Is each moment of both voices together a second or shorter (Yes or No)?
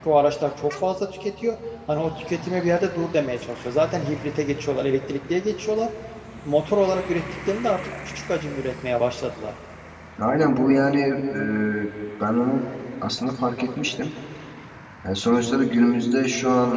Yes